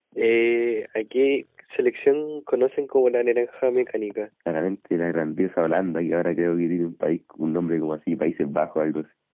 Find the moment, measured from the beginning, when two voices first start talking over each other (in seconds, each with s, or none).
none